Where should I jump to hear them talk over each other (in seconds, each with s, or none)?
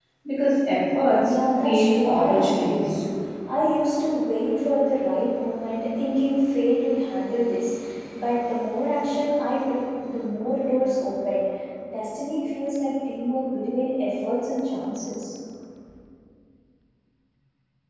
1.2 s